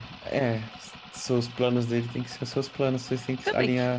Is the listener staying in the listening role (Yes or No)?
No